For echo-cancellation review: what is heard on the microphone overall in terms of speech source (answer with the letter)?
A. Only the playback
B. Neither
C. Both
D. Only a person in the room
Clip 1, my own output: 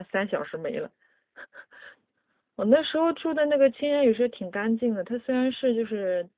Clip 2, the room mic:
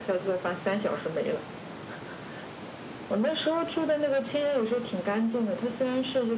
A